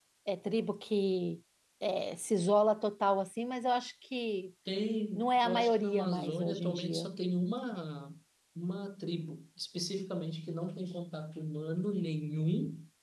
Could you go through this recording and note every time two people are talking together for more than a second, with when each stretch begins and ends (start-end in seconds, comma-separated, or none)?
5.2-7.1